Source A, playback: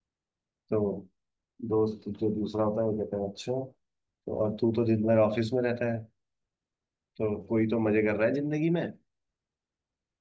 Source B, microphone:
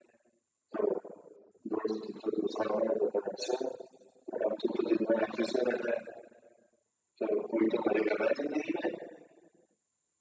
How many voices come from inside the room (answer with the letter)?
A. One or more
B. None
B